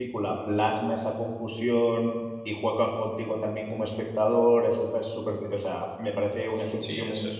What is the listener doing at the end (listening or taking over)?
taking over